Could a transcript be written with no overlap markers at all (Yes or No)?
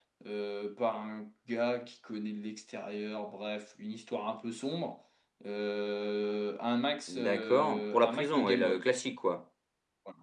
No